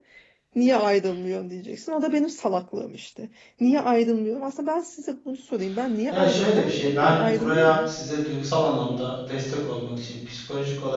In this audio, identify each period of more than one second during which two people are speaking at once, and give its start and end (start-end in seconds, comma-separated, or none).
6.1-7.9